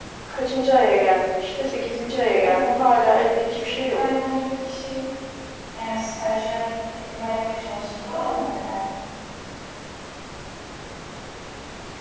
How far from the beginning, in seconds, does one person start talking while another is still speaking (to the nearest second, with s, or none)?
2 s